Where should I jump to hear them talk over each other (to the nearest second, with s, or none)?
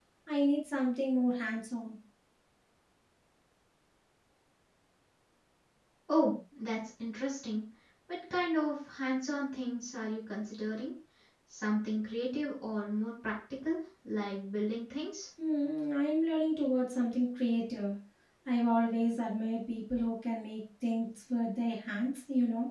none